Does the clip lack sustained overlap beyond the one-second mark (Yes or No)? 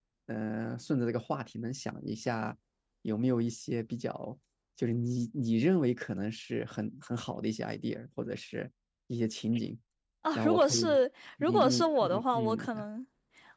No